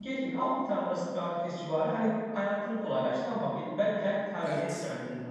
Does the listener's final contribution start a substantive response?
No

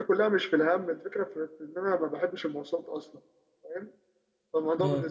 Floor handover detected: No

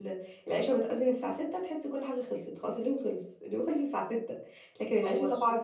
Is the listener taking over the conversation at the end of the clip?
No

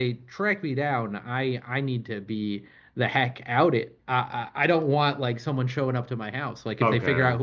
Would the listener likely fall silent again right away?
Yes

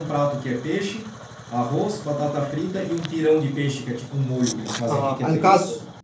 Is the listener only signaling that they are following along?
No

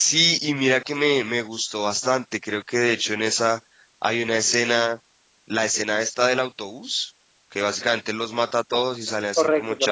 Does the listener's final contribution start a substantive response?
No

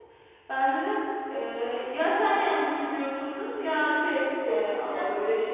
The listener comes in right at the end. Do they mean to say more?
Yes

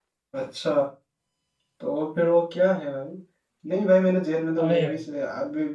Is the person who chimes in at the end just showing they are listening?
Yes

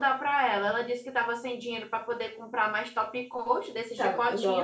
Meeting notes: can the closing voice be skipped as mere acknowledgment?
No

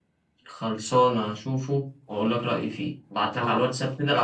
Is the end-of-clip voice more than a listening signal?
No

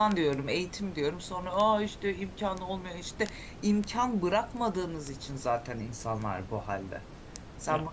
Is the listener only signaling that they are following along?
Yes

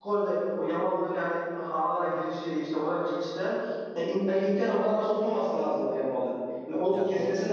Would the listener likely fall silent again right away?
Yes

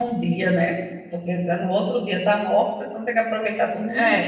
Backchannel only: No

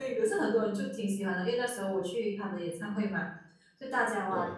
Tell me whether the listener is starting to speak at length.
No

